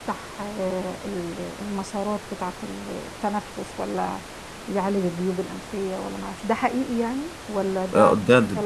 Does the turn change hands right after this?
Yes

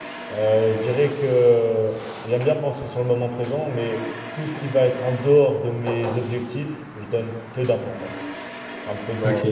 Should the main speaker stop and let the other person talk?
Yes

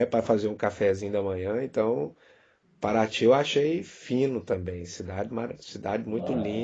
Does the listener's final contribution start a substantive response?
No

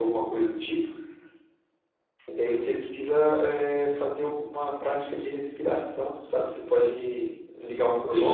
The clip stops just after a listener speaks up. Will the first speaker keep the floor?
No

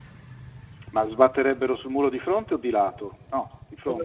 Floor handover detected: Yes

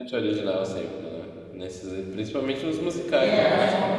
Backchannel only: No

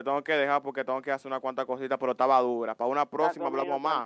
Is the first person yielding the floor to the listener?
Yes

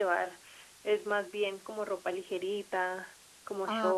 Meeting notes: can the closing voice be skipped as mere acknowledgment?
No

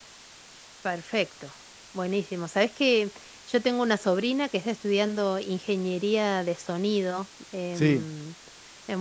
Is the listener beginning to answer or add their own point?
No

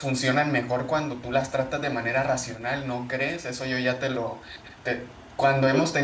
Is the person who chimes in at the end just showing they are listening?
Yes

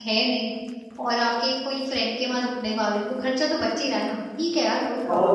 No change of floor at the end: No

